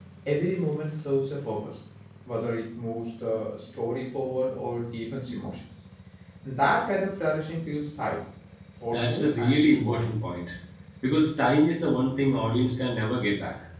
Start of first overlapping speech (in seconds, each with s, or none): 8.9 s